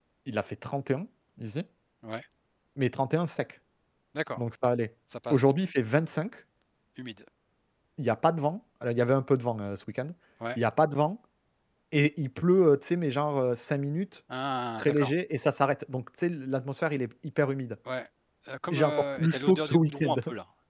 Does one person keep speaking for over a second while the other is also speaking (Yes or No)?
Yes